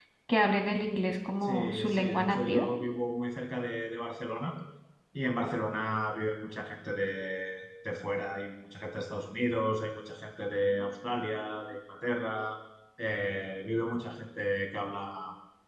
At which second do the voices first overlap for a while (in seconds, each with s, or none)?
1.4 s